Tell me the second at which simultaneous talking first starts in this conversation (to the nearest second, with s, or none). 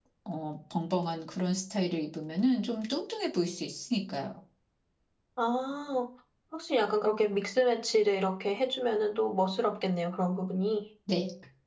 none